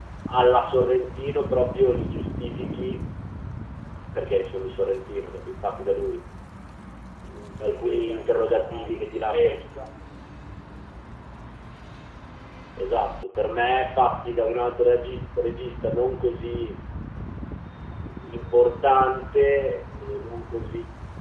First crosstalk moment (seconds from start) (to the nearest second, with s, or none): 8 s